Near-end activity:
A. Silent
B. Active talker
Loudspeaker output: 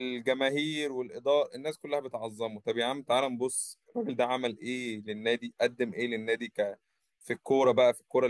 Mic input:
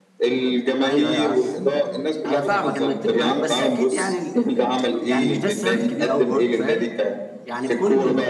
B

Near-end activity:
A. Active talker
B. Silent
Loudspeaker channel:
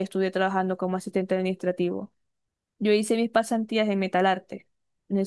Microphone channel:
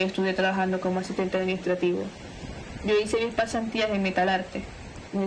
B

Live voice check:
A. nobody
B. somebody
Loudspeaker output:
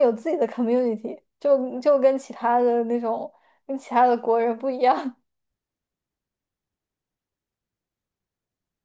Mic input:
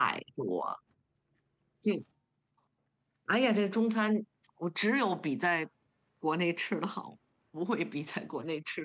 B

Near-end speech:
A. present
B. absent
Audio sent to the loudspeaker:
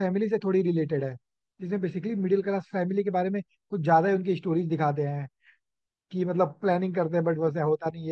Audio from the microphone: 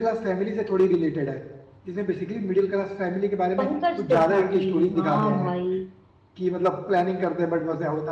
A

